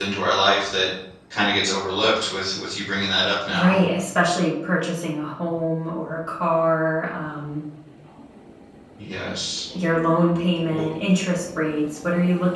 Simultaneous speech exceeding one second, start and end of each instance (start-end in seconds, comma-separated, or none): none